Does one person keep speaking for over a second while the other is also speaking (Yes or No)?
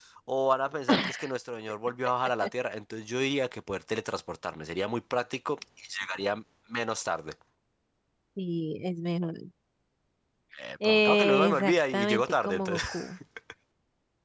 Yes